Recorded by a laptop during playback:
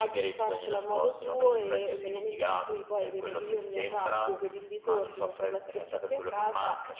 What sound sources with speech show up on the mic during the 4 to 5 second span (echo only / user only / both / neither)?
echo only